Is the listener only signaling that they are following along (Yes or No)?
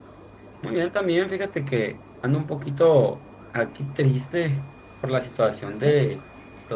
Yes